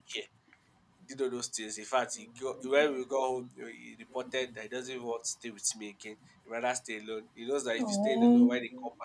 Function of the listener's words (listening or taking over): listening